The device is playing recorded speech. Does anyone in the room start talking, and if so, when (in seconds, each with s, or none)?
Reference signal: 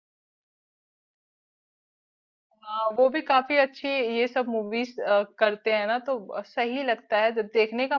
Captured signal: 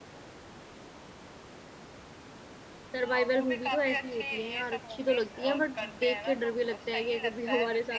3.0 s